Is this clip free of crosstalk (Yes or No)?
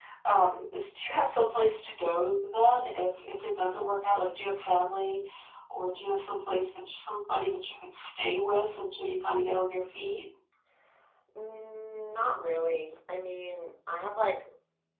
Yes